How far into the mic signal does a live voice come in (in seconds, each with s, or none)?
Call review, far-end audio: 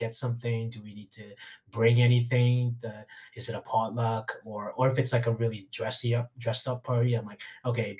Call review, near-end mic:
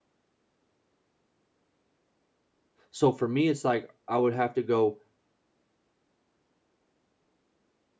2.9 s